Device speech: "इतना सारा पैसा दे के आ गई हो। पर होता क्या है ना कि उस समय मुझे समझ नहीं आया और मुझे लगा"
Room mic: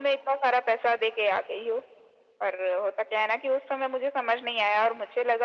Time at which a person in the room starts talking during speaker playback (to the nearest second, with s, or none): none